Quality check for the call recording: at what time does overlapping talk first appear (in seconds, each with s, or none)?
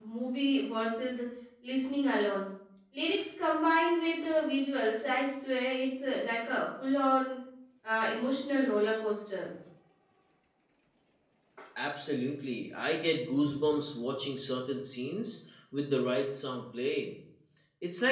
none